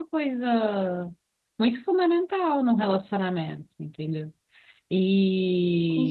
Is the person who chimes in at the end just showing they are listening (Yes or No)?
Yes